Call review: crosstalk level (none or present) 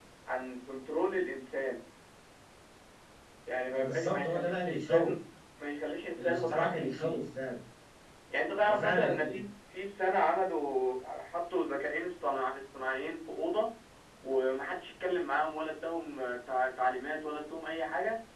present